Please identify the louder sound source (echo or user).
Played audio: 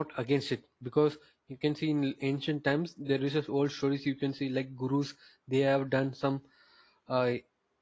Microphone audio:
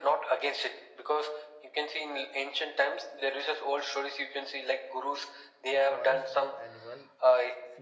echo